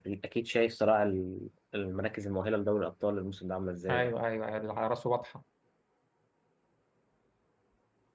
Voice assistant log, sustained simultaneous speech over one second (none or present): none